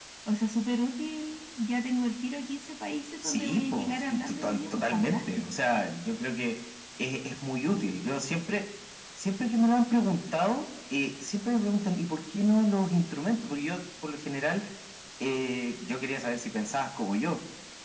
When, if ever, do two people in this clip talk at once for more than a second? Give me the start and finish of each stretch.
3.2-5.6

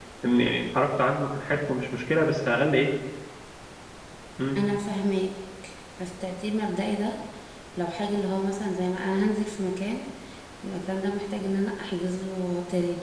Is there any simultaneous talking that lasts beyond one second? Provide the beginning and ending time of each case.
none

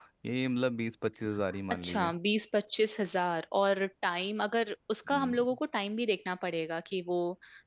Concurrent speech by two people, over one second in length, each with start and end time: none

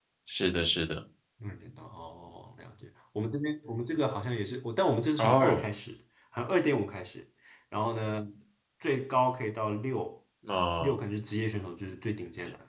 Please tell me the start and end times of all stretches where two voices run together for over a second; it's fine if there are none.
none

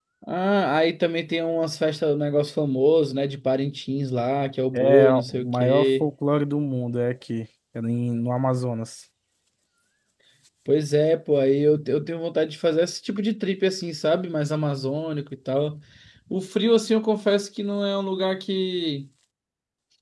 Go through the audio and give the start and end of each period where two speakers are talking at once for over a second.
4.7-6.1

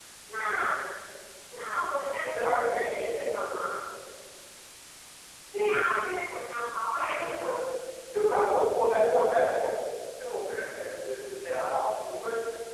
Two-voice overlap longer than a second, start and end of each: 2.2-3.5

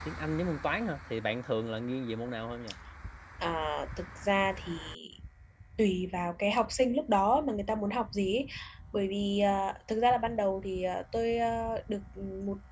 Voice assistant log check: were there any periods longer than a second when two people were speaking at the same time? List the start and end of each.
none

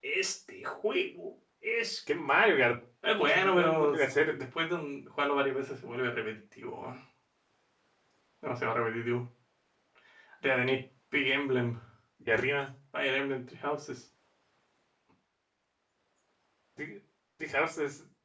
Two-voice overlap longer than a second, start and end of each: 3.2-4.4

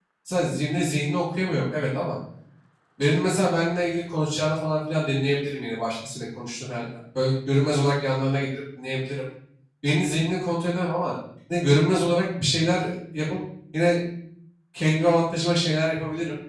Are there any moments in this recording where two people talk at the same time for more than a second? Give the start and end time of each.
none

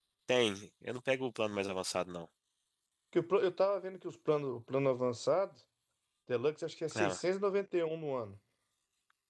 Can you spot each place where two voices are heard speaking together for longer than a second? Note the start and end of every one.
none

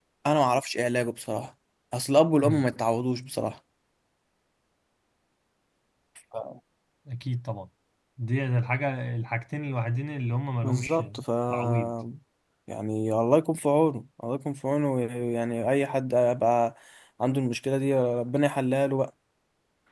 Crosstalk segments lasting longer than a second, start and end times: none

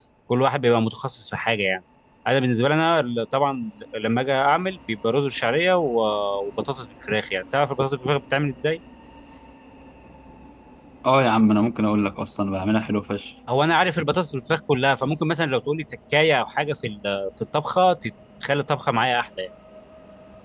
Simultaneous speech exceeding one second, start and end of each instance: none

